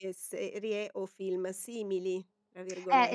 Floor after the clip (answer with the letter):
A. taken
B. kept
A